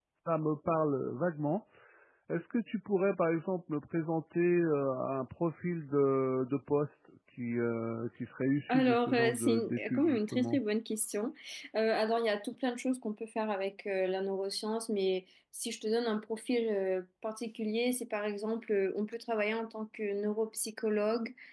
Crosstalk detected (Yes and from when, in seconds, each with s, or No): Yes, from 8.7 s